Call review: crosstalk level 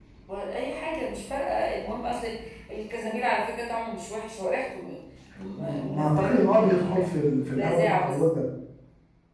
present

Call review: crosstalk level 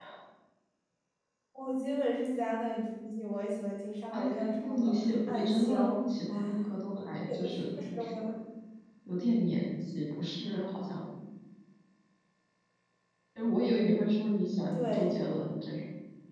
present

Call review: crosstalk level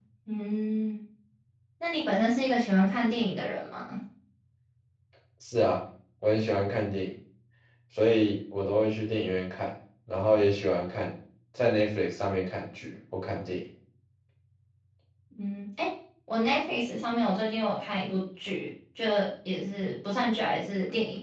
none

